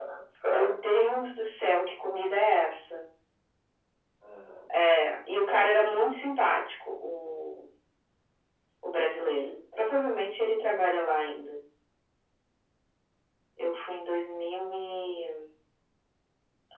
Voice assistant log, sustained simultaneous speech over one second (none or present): none